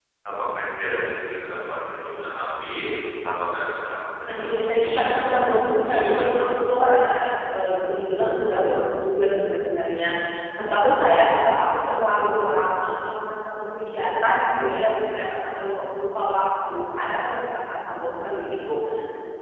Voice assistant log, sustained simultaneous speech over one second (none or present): present